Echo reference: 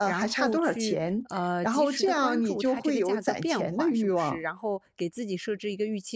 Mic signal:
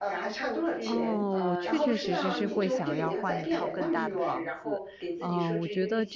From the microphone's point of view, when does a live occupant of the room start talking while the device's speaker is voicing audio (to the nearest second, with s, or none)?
1 s